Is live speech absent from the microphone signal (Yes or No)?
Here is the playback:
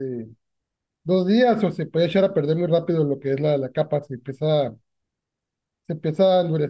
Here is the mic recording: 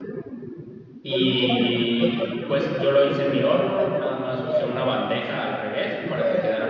No